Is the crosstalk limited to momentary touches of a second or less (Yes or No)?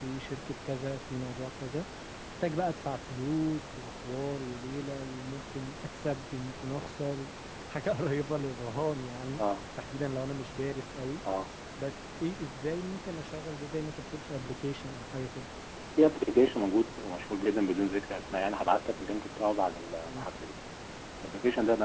Yes